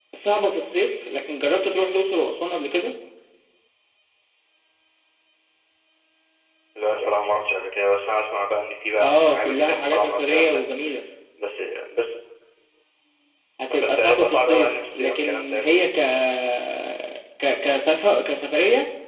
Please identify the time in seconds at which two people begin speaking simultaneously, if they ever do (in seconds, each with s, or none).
9.0 s